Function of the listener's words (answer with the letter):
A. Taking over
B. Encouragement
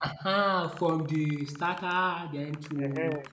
A